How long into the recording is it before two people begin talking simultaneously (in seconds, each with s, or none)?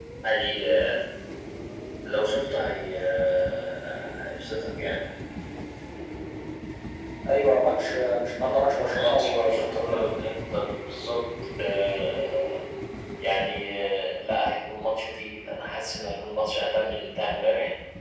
8.9 s